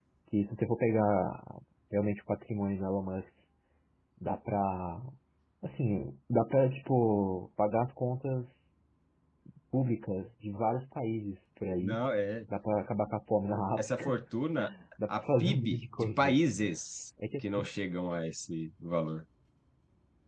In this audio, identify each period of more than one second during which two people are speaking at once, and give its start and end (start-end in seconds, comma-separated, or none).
15.1-16.4